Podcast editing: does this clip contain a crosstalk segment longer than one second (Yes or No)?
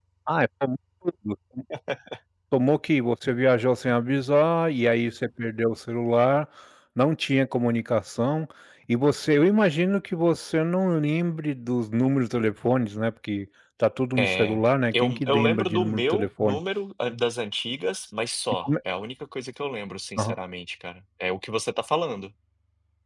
Yes